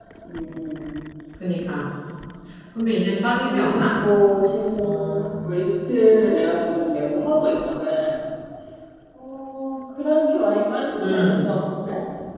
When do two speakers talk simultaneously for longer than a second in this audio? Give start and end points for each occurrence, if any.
none

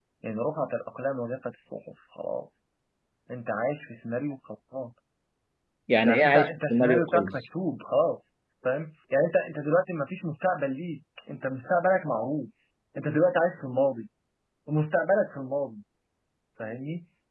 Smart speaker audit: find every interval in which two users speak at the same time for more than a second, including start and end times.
5.9-7.3

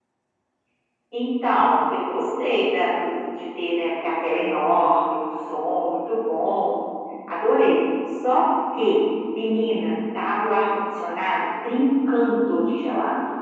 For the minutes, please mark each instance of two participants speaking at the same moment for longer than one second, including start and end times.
none

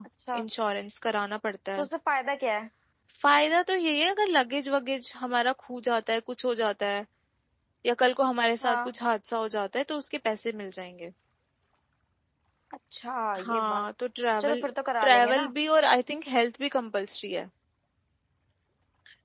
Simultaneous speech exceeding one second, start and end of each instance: none

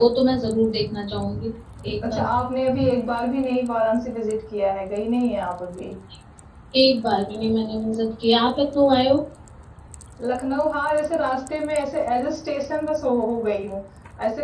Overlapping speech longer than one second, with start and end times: none

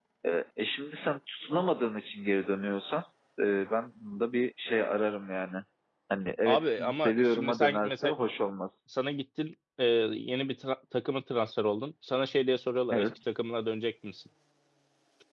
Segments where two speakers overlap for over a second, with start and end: 6.5-8.1

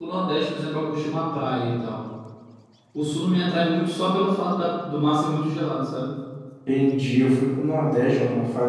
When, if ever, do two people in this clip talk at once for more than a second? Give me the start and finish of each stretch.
none

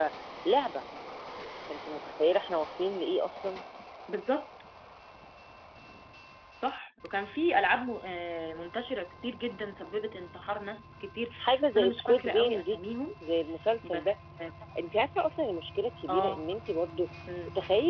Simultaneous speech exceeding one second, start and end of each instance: 11.4-12.8

